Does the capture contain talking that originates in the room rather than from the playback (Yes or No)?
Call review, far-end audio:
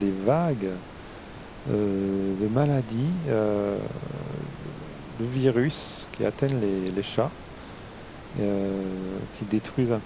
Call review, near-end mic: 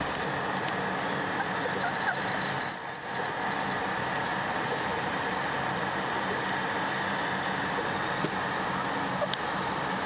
No